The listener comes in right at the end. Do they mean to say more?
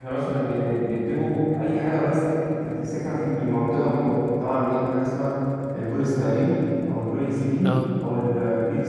No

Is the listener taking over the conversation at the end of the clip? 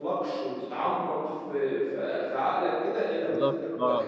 Yes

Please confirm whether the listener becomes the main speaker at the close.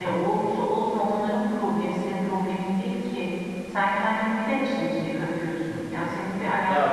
No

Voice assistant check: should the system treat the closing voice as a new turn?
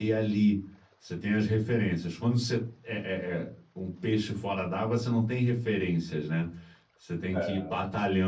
No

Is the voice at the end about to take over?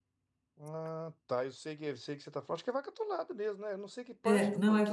Yes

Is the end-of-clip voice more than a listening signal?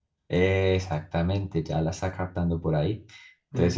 No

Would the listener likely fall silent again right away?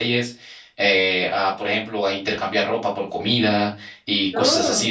Yes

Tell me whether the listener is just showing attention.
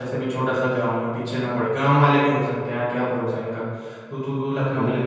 No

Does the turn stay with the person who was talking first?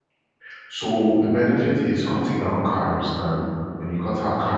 Yes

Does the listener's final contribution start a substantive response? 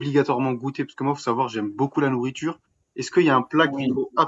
No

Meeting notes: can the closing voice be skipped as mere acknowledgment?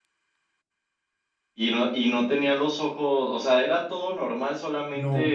No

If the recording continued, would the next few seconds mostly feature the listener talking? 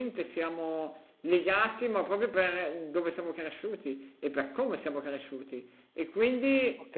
No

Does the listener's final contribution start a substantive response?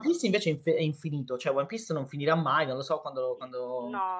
Yes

